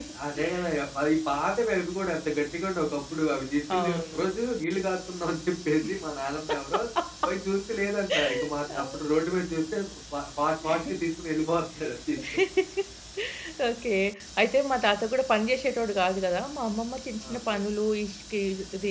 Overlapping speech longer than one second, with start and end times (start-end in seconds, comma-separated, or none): none